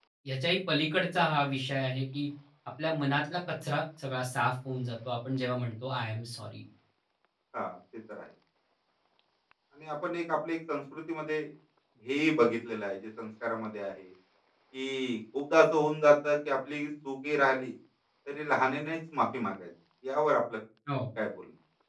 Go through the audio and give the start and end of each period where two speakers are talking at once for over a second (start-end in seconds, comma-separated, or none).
none